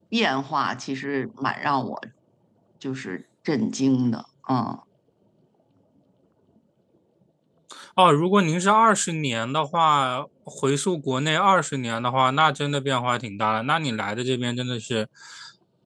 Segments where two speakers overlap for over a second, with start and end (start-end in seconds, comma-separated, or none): none